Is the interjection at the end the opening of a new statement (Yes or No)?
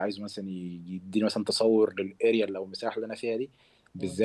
No